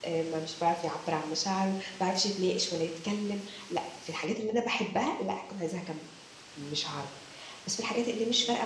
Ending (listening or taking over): listening